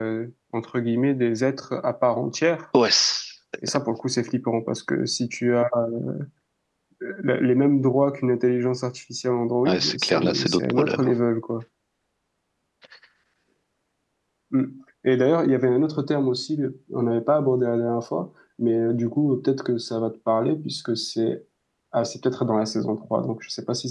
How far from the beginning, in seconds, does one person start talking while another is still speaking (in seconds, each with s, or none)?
9.6 s